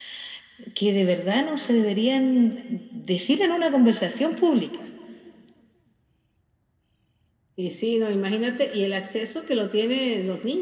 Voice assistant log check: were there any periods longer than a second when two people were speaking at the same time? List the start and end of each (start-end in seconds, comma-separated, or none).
none